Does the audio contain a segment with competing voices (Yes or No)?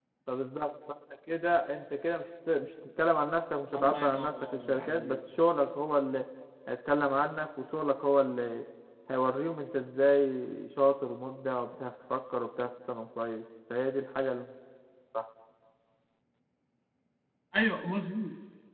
Yes